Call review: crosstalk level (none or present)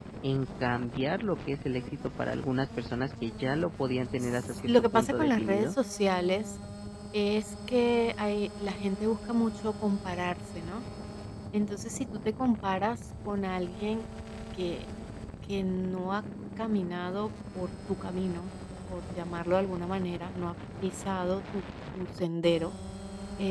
present